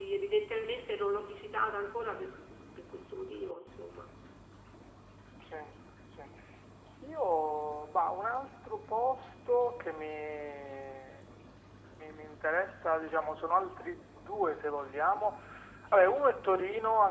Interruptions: none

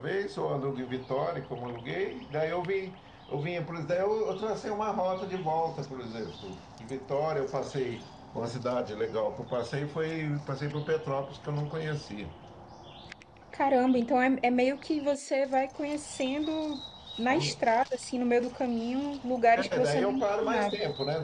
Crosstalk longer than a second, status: present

